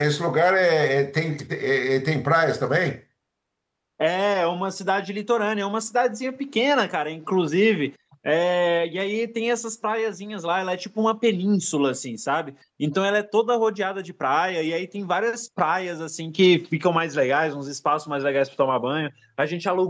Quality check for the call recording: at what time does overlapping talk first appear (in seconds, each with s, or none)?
none